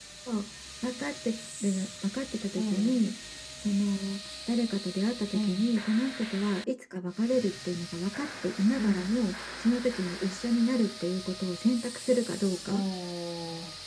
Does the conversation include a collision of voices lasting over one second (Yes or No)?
No